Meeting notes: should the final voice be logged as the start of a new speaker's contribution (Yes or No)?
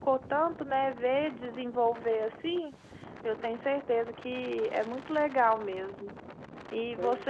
No